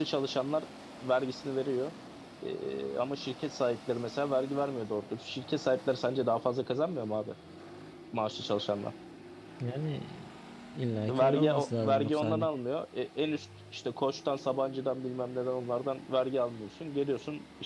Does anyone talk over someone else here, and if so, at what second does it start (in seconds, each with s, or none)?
11.1 s